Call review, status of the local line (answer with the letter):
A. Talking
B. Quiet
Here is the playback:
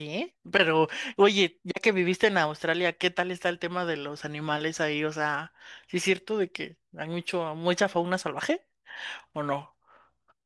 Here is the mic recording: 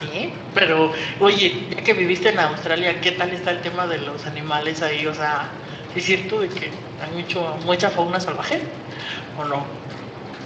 B